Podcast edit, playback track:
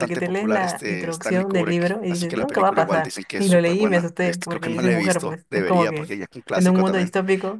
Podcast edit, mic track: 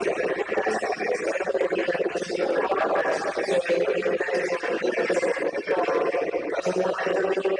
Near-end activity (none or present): none